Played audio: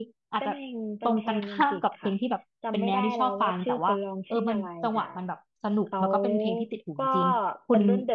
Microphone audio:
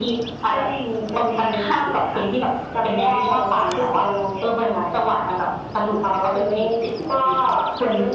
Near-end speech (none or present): none